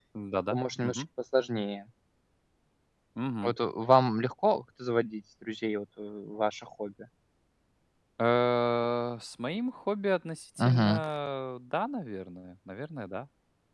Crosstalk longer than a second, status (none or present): none